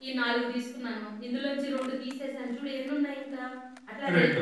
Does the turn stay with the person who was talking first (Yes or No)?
Yes